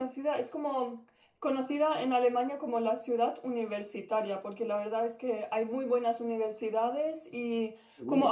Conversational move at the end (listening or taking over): listening